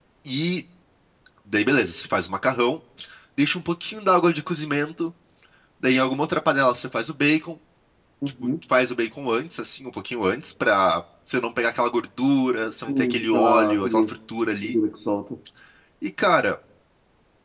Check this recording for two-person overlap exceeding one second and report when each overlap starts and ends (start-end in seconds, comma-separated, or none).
12.9-14.1